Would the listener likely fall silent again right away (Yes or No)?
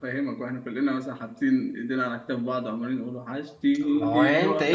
No